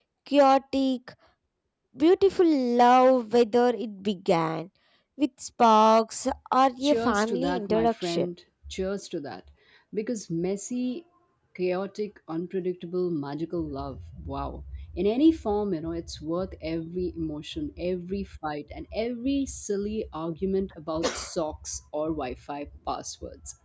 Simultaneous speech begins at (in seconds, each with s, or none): 6.8 s